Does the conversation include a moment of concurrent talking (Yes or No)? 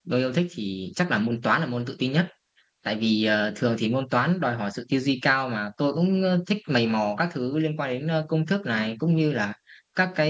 No